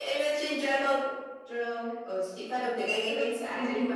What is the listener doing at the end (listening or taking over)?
taking over